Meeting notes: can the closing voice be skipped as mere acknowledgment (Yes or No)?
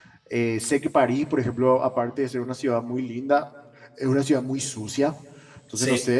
Yes